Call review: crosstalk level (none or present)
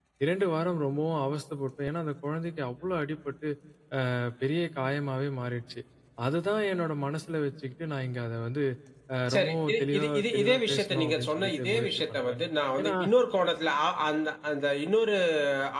present